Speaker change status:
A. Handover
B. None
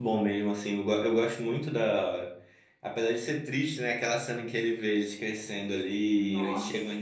B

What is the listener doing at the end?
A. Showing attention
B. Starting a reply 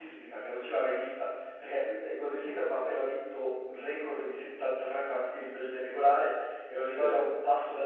A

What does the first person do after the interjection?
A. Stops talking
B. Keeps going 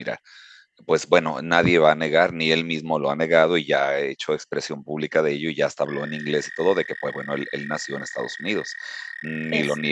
B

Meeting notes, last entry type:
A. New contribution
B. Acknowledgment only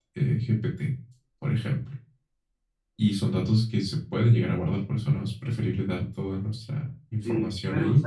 A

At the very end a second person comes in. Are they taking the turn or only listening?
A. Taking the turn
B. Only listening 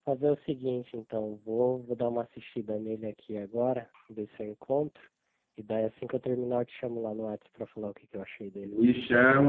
A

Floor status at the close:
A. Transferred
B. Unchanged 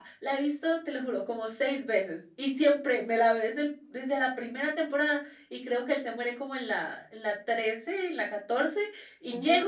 B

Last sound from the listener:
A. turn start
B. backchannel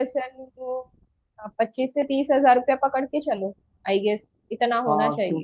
A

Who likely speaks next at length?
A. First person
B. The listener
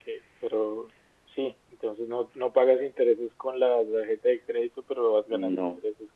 A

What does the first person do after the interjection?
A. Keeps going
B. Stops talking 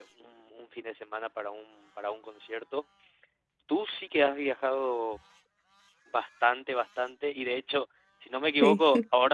A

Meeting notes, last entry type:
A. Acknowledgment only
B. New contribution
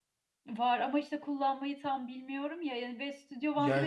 B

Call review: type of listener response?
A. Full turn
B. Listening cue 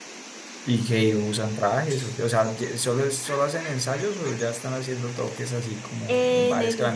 A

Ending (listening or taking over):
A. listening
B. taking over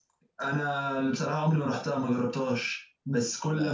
A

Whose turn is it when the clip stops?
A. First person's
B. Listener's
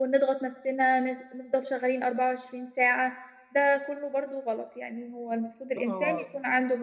A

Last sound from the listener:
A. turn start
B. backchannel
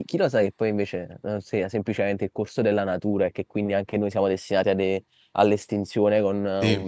B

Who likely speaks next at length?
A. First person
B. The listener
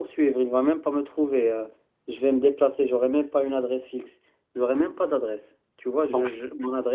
A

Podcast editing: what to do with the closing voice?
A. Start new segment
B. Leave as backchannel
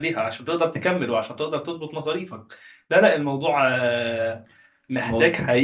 B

